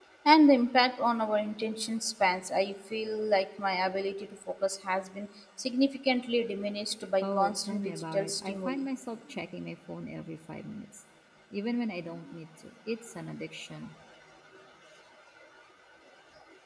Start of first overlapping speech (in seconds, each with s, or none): 7.2 s